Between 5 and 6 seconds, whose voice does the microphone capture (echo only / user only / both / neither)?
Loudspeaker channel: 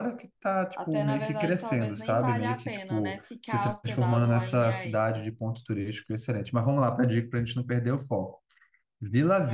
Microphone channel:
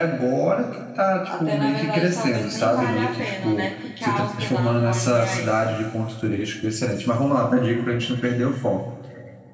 echo only